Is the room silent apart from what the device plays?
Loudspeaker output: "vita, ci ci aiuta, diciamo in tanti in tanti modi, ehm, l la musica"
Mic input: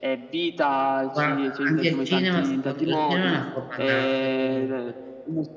No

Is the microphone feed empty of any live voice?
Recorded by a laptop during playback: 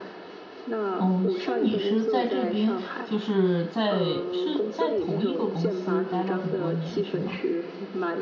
No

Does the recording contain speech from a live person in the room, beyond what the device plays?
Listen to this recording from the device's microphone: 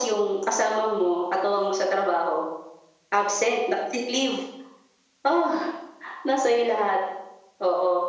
No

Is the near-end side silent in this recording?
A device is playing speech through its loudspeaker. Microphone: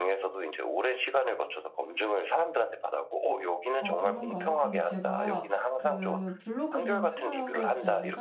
No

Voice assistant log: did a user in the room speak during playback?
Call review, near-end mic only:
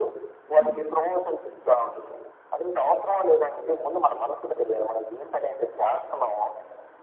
Yes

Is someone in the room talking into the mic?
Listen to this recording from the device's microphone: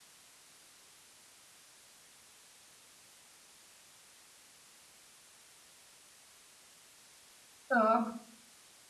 Yes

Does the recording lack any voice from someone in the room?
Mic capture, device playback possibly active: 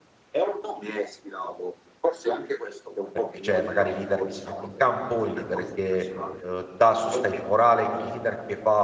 No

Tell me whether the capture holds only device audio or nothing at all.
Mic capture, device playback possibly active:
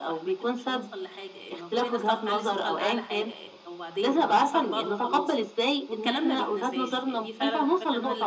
No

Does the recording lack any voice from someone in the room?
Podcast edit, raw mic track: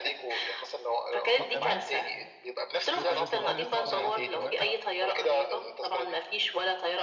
No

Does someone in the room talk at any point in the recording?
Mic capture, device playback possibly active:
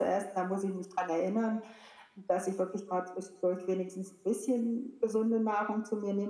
No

